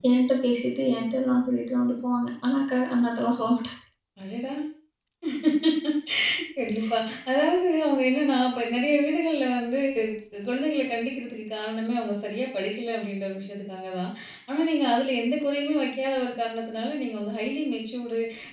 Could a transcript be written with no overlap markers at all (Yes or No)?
Yes